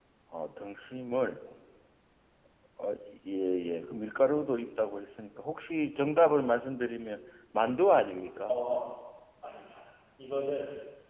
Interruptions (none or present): none